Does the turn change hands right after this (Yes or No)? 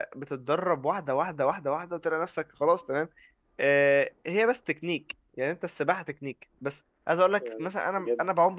No